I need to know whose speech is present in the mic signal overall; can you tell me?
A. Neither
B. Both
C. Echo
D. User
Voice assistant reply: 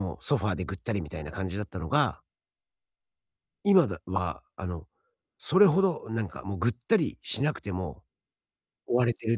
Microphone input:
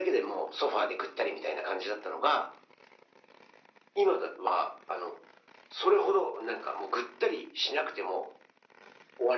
C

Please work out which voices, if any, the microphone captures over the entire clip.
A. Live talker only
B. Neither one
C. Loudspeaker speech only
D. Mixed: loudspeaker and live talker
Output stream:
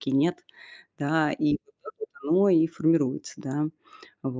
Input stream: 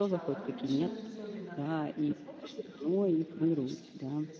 D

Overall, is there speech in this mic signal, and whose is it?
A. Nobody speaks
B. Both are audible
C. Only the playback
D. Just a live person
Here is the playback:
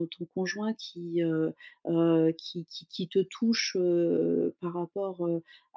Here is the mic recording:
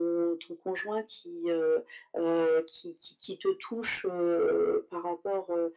C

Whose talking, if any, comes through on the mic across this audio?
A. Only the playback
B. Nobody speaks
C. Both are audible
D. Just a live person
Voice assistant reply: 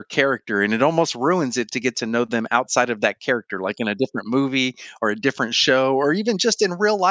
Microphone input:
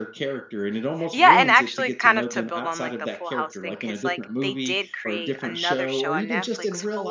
C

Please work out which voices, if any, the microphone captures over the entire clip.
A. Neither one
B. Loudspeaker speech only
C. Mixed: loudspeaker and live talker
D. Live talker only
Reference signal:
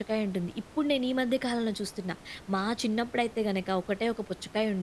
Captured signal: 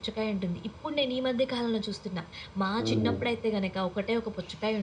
C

